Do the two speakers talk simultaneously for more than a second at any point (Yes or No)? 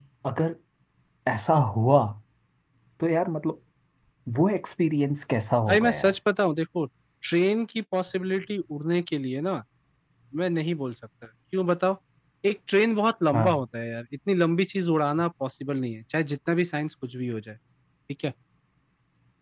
No